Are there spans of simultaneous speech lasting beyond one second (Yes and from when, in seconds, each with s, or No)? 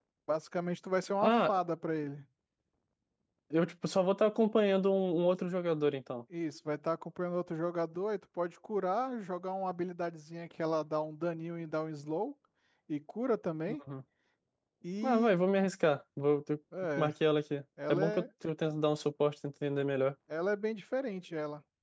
No